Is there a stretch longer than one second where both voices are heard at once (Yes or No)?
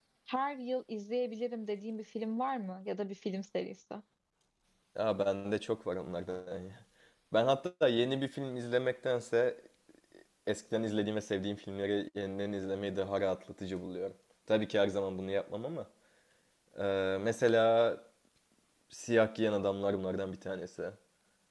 No